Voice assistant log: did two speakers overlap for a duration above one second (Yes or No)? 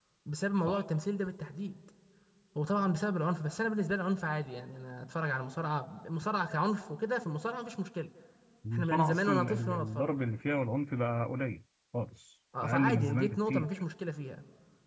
Yes